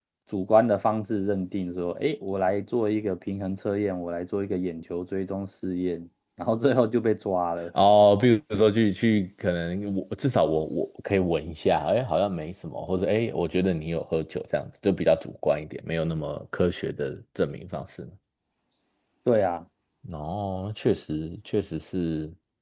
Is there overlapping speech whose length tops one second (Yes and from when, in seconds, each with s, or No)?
No